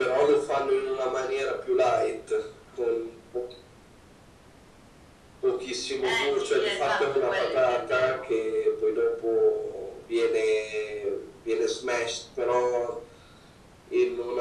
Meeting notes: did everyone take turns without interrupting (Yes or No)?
No